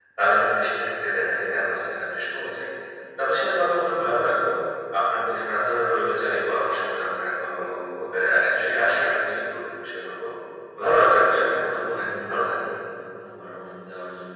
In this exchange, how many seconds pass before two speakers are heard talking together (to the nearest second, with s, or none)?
11 s